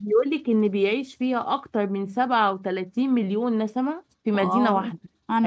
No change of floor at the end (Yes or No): No